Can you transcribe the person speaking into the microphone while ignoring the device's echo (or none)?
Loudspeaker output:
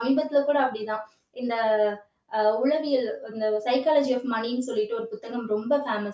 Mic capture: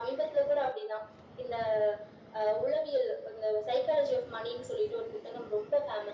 none